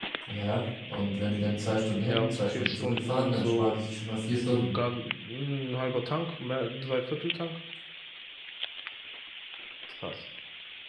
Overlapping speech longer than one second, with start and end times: 2.0-3.8

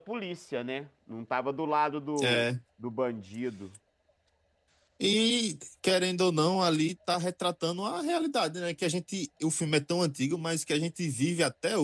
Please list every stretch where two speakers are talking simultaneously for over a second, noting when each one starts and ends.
none

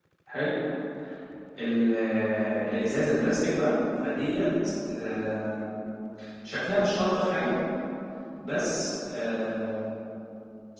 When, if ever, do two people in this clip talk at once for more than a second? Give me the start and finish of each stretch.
none

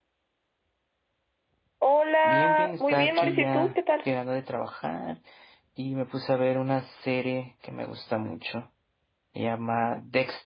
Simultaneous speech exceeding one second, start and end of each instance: 2.2-3.8

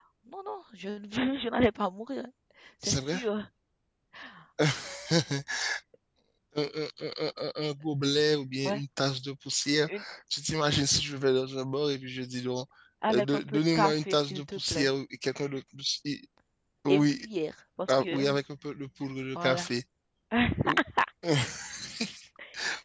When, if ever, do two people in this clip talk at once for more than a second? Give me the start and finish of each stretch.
13.1-14.9

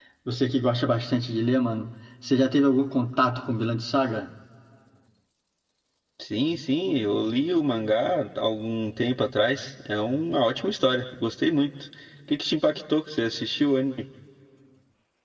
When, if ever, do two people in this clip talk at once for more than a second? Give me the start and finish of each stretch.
none

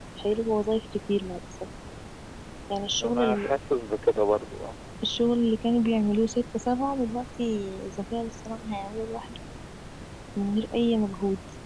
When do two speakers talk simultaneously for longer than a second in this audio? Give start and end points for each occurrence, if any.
none

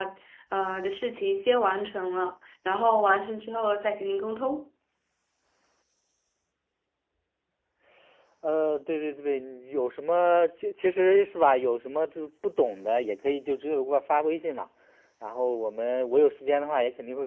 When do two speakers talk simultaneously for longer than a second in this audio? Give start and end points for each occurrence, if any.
none

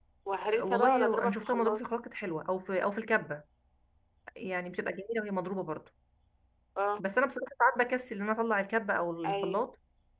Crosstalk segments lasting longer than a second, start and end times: 0.6-1.8

